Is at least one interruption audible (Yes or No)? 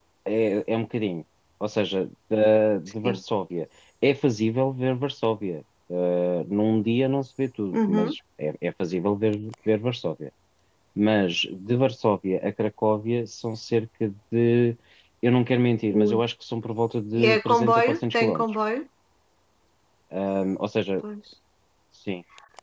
Yes